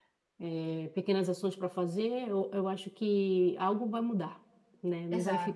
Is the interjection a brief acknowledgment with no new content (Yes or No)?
Yes